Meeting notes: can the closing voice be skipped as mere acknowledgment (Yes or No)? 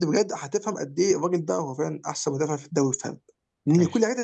Yes